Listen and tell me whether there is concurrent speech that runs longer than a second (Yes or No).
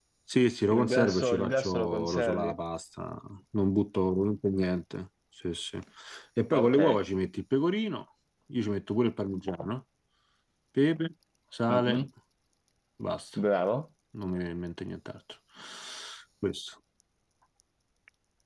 Yes